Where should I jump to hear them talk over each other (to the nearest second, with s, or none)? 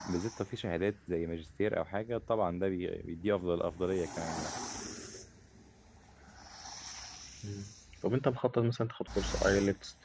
none